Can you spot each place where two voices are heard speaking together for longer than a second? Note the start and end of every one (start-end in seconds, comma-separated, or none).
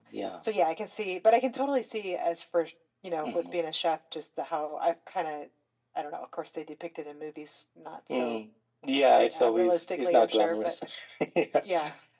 9.2-10.7